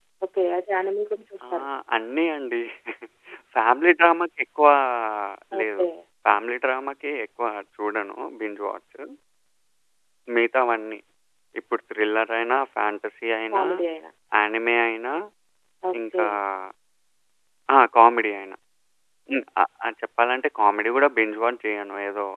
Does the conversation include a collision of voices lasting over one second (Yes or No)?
No